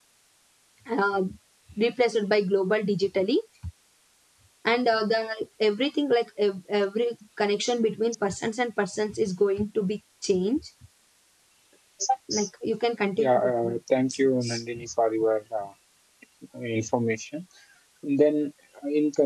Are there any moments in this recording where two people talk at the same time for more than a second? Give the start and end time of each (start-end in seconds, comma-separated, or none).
13.2-14.6